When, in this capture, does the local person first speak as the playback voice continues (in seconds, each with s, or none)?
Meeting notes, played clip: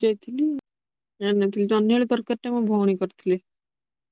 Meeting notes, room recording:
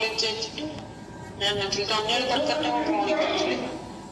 2.1 s